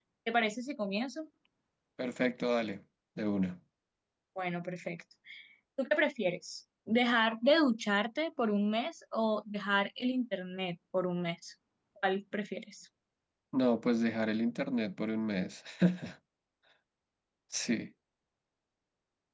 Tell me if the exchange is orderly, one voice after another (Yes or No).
Yes